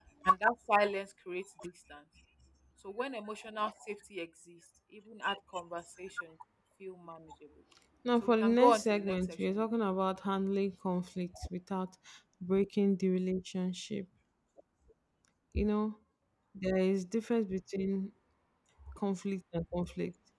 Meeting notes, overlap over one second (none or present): present